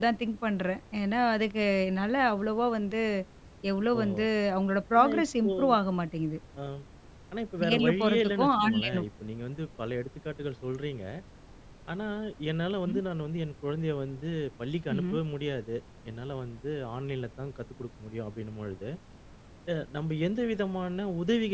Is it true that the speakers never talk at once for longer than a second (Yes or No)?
No